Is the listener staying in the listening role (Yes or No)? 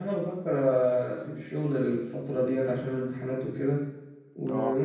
Yes